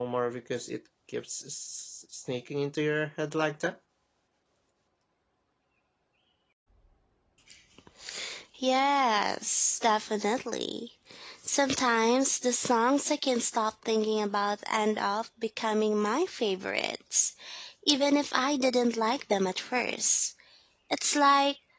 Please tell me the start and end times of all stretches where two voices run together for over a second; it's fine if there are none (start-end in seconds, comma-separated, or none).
none